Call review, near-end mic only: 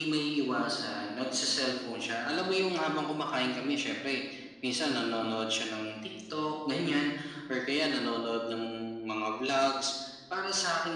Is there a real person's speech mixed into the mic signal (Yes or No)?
No